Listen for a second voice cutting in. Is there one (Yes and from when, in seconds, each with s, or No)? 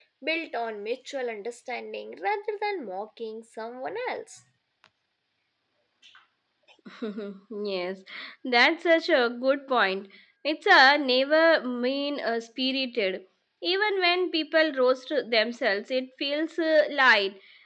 No